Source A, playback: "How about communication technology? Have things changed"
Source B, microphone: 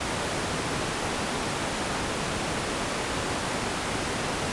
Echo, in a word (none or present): none